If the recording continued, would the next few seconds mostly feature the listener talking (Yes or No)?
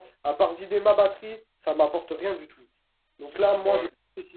No